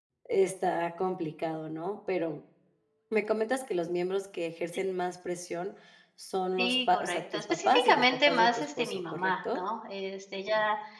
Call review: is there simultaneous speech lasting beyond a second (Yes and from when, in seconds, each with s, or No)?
Yes, from 6.6 s